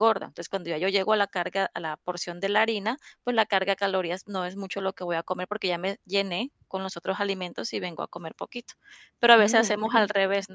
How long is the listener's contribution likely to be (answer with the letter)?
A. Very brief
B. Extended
A